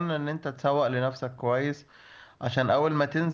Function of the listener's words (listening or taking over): listening